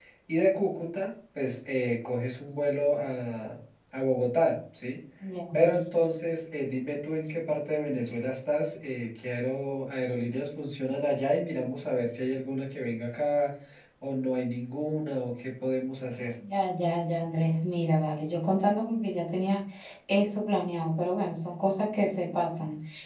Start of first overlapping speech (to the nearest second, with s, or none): none